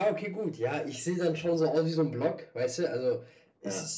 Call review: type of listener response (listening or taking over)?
listening